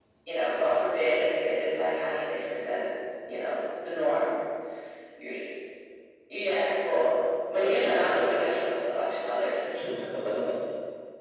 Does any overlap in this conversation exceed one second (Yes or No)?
Yes